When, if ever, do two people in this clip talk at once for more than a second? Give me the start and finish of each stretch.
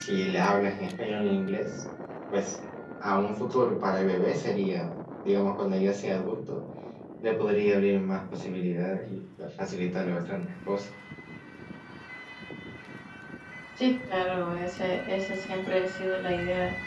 none

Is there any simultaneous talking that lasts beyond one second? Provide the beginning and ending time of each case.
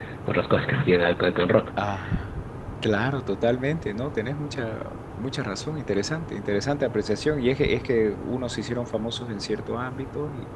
none

